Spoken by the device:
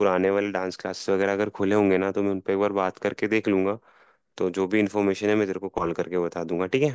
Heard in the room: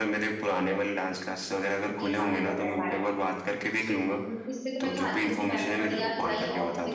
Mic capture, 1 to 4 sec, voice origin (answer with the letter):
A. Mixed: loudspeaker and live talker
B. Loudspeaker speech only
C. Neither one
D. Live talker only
A